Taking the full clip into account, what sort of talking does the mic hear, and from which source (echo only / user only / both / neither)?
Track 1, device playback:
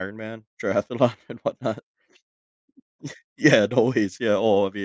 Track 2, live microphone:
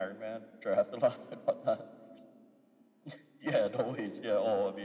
echo only